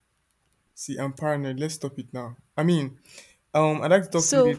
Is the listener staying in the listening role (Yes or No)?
Yes